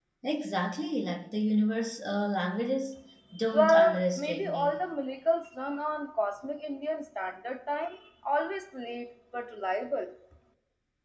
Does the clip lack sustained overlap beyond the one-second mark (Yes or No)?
No